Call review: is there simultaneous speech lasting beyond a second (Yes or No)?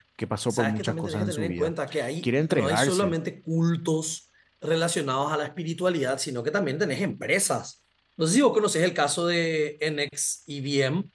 Yes